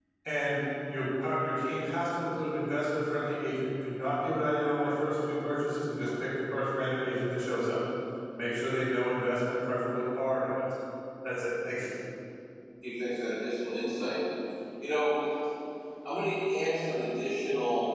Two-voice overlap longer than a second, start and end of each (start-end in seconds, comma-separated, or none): none